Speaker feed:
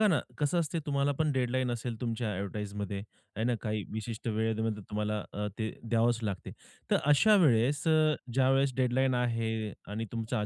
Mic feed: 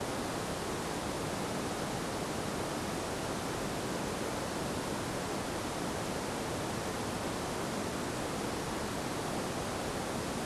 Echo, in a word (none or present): none